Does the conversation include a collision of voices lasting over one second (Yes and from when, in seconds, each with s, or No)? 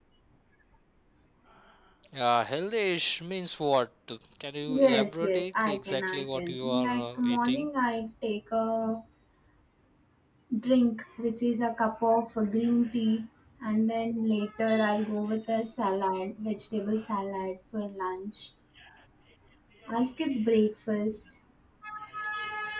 Yes, from 4.7 s